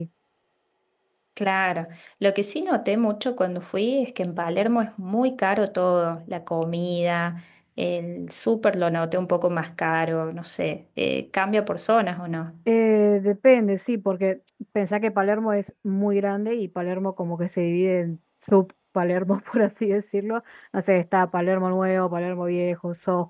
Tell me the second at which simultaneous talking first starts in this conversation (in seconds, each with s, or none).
none